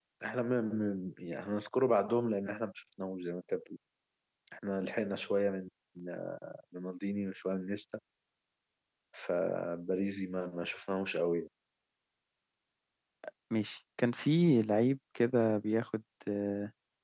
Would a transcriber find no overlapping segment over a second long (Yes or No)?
Yes